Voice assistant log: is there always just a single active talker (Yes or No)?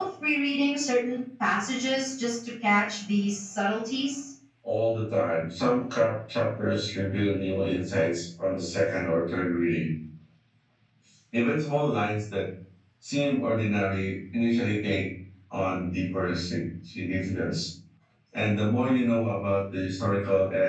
Yes